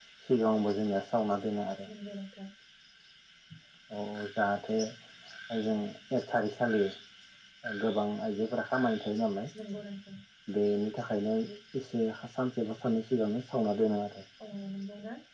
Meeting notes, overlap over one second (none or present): none